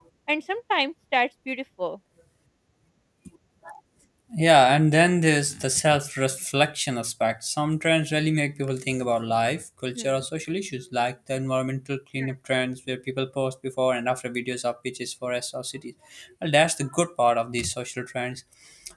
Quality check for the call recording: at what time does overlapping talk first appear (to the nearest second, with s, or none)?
none